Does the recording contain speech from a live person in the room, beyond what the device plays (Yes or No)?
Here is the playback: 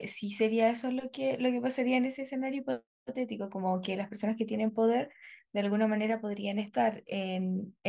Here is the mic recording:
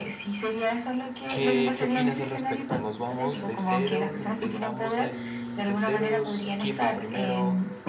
Yes